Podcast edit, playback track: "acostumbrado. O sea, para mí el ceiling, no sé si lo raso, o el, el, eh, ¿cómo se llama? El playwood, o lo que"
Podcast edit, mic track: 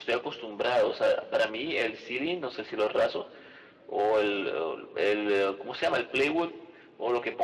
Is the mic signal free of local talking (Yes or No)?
Yes